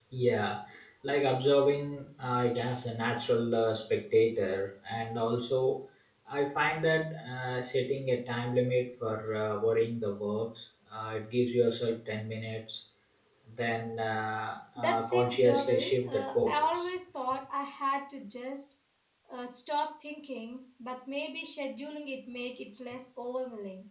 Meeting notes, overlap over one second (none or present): present